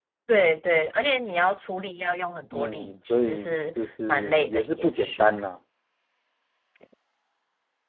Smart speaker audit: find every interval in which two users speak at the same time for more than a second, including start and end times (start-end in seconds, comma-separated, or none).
2.5-5.4